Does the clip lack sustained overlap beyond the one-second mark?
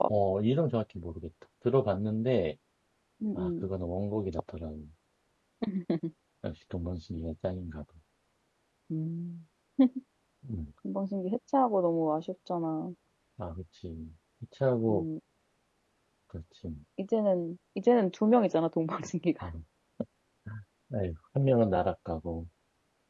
Yes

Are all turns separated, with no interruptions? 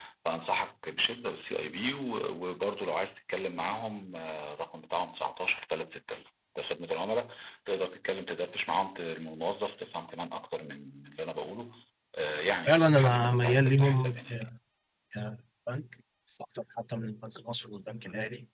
No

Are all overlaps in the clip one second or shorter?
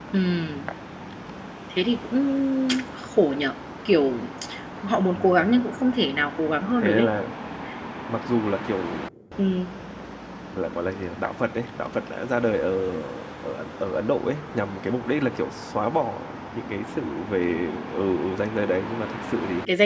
Yes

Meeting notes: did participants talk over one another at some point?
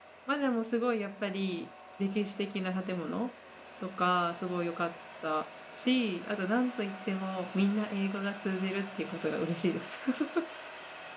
No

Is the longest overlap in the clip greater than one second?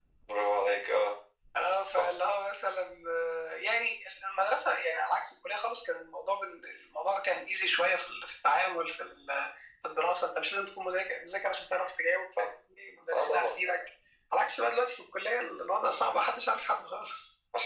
No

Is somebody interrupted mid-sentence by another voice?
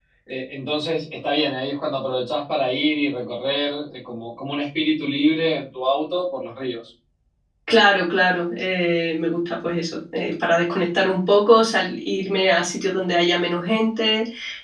No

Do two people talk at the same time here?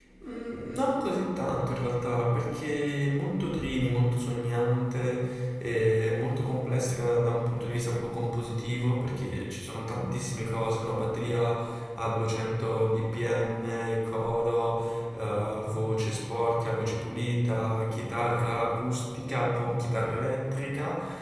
No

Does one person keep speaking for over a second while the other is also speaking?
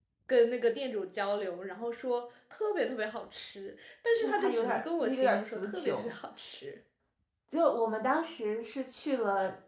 Yes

